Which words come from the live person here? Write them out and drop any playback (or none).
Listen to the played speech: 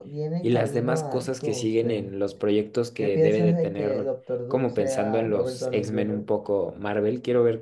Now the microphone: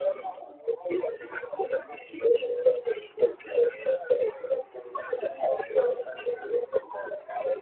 none